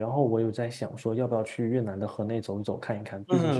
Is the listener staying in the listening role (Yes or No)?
No